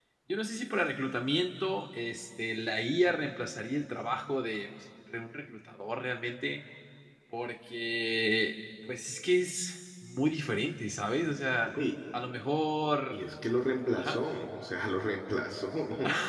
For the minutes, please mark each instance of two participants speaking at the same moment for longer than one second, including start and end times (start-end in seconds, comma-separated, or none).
none